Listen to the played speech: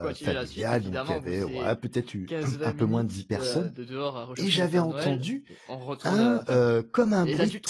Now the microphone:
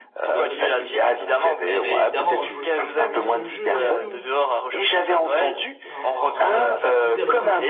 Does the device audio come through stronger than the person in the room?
Yes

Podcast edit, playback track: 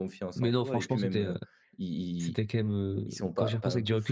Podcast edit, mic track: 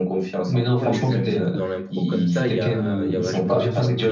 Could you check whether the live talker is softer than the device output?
Yes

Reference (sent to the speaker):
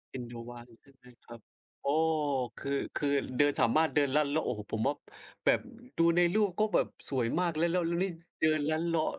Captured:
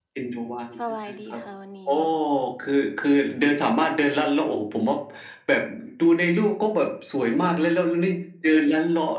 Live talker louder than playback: No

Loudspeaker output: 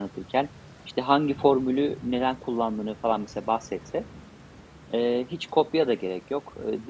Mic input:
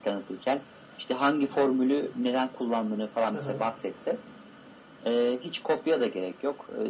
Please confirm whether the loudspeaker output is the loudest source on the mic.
Yes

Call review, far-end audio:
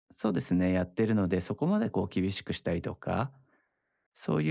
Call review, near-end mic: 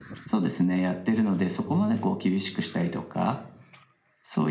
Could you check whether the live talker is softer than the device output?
Yes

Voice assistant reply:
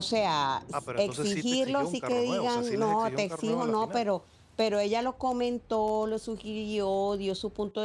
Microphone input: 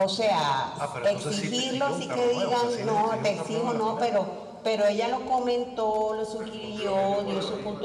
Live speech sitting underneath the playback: Yes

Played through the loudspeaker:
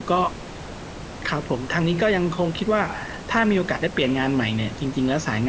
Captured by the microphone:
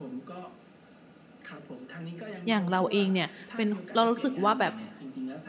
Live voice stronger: Yes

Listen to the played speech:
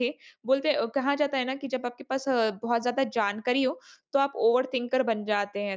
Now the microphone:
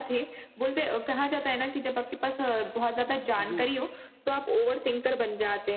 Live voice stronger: No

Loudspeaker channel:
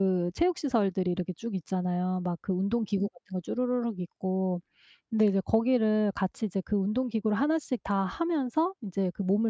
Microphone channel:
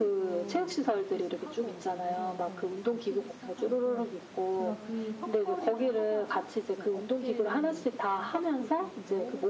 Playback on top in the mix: Yes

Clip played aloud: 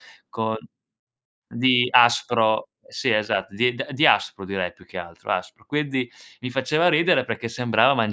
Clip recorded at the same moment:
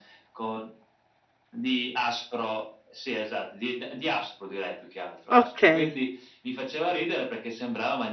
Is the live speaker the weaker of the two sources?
No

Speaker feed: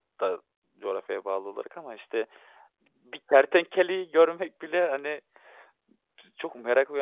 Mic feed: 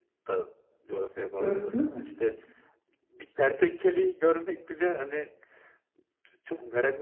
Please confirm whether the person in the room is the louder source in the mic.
Yes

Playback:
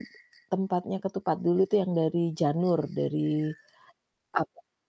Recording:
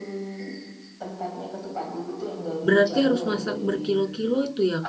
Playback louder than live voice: No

